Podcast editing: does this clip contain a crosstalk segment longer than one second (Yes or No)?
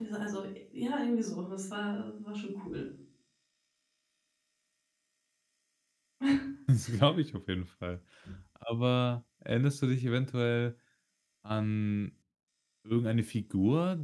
No